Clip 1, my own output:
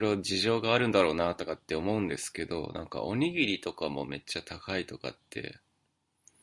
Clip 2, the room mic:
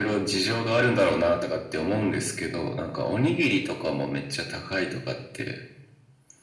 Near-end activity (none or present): none